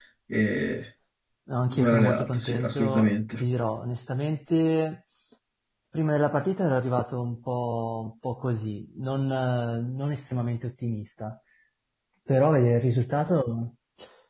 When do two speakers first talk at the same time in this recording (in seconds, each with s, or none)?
1.7 s